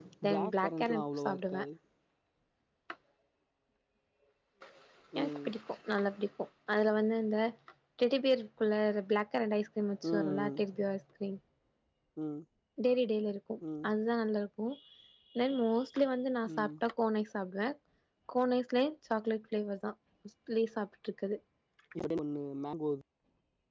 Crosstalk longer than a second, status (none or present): present